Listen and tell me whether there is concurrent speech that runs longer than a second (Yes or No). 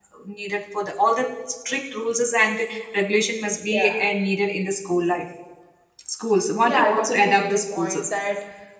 Yes